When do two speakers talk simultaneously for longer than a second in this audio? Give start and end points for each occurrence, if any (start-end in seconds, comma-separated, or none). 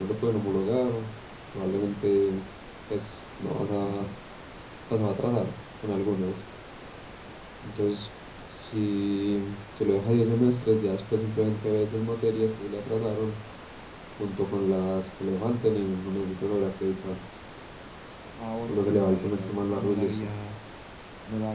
18.7-20.3